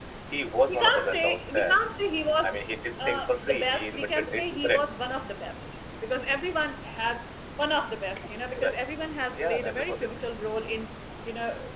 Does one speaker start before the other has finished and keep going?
Yes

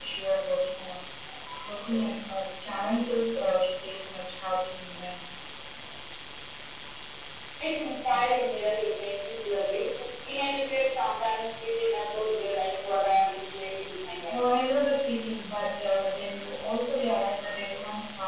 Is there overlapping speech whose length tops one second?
No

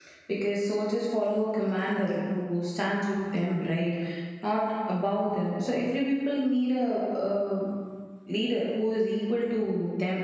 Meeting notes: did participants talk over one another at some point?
No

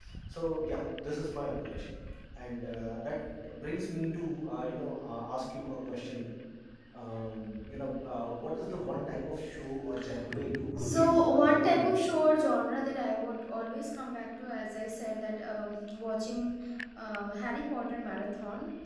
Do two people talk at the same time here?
Yes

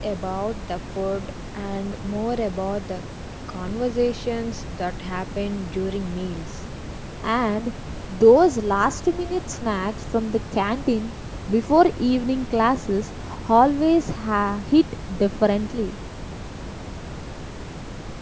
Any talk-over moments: No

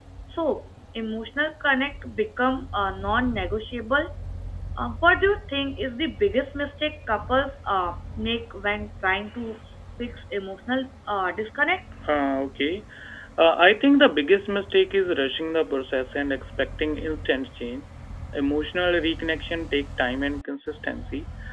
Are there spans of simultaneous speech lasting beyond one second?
No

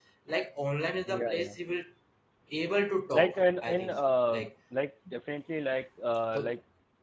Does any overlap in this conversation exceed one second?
Yes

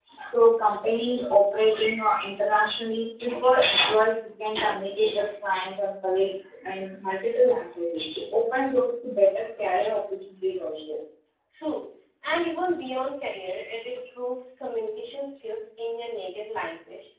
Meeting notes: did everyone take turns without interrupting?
Yes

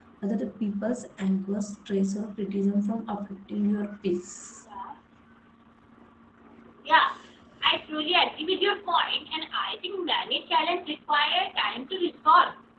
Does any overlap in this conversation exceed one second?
No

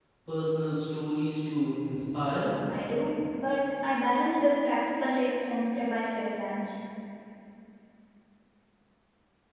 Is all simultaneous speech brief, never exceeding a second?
Yes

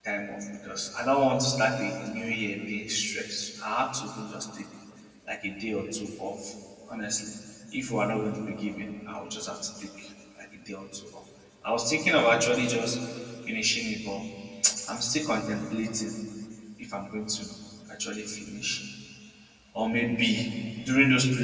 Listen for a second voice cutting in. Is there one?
No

